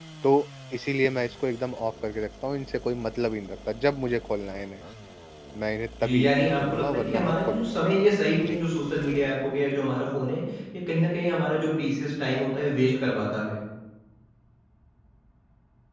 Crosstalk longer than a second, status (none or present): present